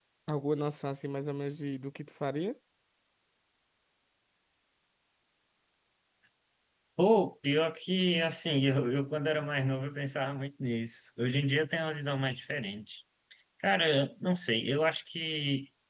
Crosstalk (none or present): none